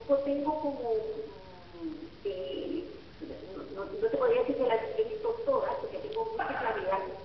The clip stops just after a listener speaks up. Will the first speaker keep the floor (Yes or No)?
Yes